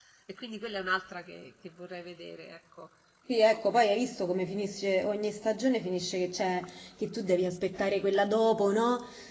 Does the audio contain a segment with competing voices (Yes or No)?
No